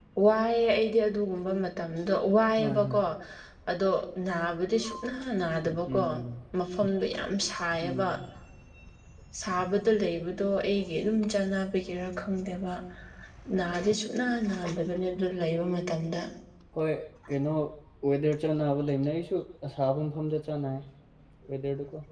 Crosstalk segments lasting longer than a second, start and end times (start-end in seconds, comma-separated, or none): none